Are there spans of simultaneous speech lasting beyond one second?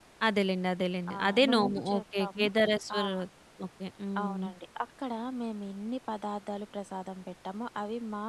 Yes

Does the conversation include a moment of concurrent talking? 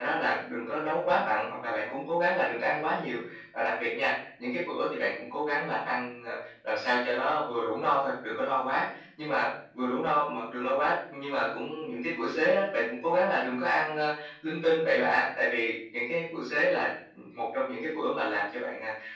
No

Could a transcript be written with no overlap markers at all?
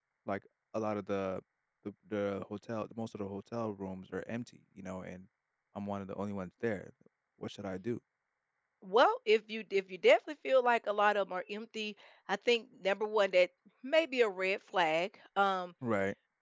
Yes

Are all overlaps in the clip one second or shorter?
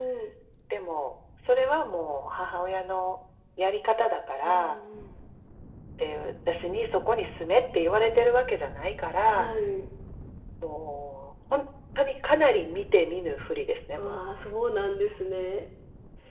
Yes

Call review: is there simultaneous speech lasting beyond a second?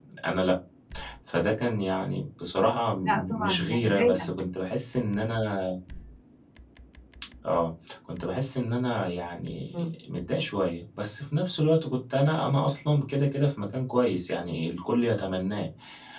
Yes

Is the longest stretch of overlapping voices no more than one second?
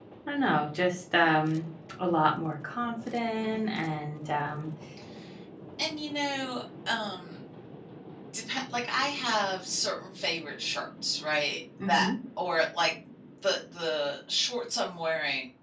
Yes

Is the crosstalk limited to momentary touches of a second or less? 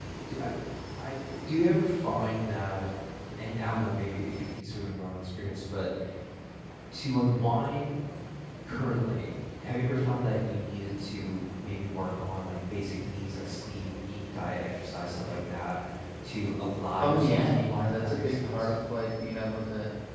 No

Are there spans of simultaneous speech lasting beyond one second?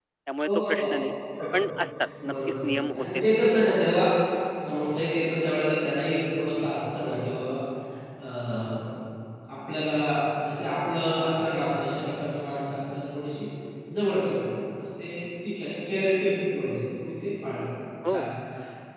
Yes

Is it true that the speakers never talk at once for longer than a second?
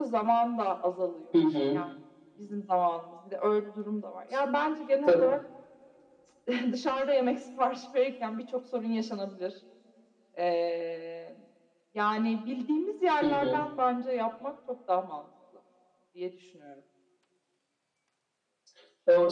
Yes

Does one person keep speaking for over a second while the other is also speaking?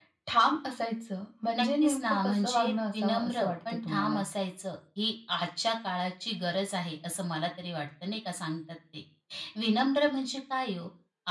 Yes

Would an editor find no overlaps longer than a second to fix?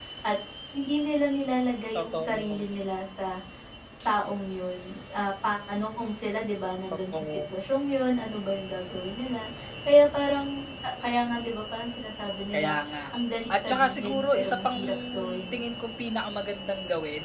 No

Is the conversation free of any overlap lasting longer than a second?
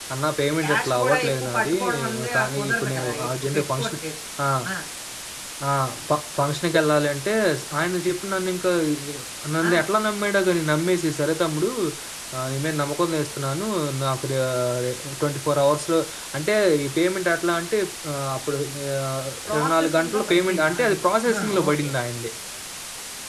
No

